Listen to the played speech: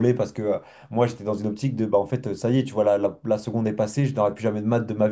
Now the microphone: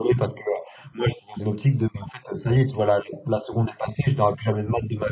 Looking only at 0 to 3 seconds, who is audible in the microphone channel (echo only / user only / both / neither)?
echo only